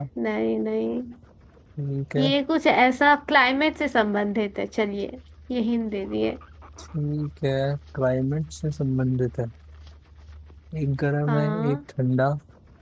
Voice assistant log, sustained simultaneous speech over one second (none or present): none